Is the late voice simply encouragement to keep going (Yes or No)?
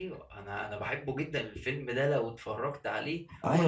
No